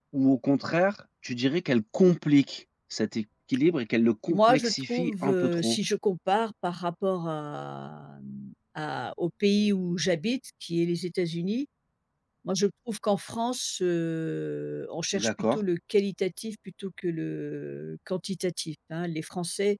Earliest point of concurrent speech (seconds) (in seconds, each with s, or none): 4.3 s